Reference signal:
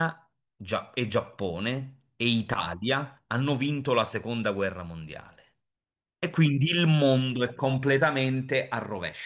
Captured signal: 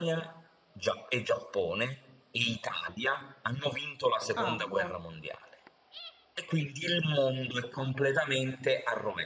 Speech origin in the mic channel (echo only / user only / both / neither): both